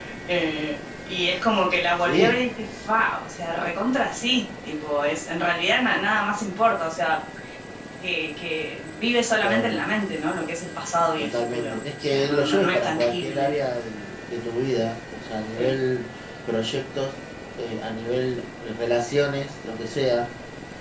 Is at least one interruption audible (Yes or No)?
Yes